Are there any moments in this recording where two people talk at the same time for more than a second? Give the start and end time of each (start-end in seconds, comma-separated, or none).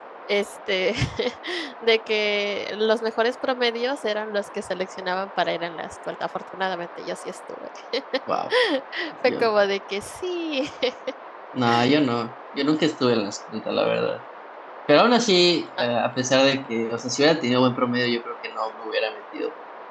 none